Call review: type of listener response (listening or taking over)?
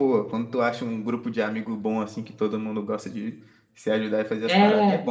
taking over